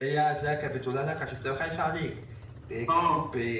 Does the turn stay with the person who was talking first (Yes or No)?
Yes